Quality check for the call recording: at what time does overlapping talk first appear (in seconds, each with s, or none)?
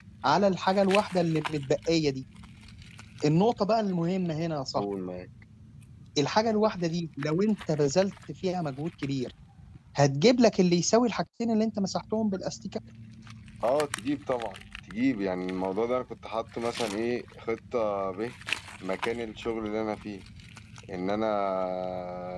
none